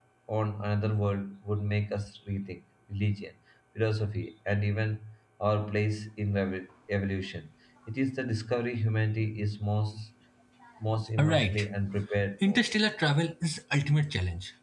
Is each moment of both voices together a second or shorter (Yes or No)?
Yes